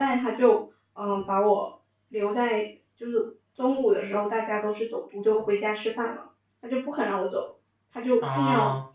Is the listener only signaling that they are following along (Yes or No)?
Yes